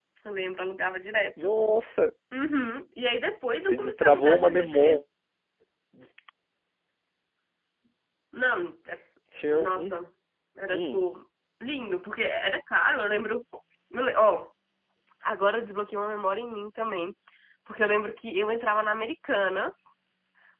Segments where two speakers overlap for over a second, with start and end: 3.6-5.0

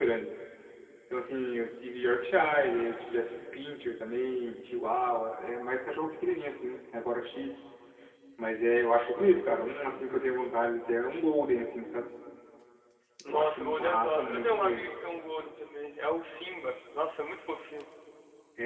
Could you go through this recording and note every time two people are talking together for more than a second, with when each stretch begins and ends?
13.3-14.9

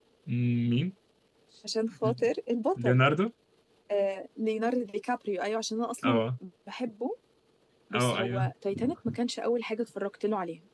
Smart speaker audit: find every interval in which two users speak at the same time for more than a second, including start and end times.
none

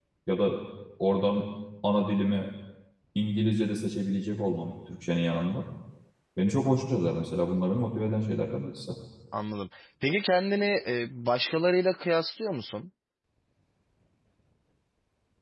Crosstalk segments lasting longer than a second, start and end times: none

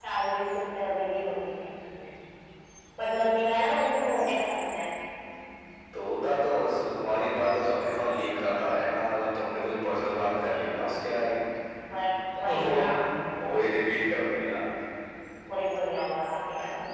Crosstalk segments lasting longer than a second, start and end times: none

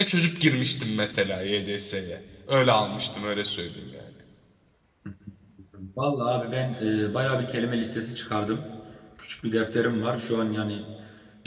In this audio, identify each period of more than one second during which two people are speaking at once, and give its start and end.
none

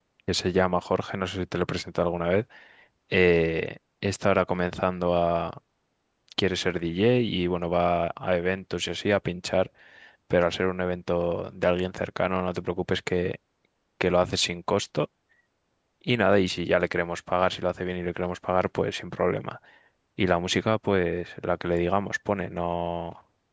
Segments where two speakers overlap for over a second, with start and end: none

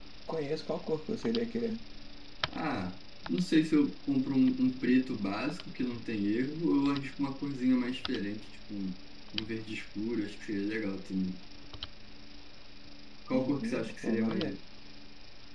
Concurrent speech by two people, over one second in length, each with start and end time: 13.3-14.6

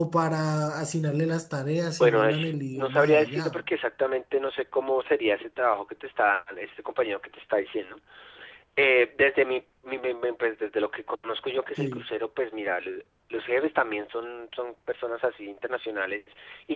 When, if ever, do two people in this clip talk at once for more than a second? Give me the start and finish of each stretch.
2.0-3.6

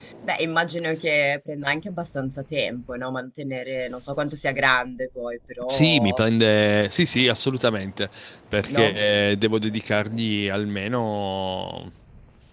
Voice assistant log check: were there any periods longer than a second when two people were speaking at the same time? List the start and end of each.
none

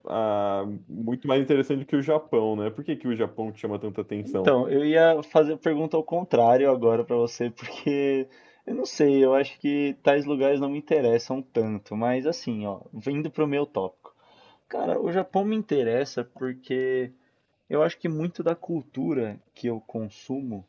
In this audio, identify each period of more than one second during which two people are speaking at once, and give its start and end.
none

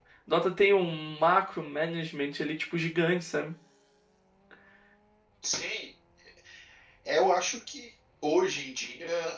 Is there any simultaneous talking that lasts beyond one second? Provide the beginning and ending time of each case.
none

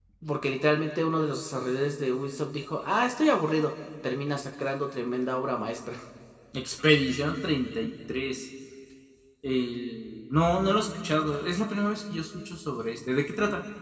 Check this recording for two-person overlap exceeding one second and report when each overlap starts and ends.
none

